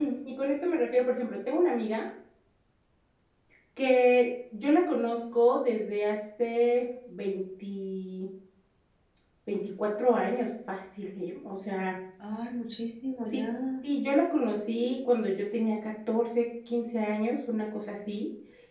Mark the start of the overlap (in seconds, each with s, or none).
none